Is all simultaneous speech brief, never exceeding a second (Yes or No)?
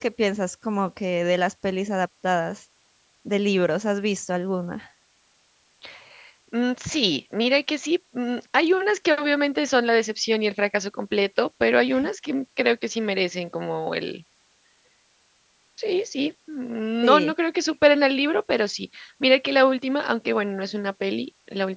Yes